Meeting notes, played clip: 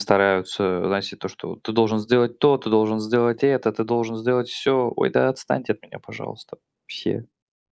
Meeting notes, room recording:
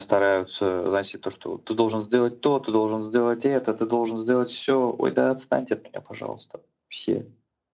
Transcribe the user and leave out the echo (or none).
none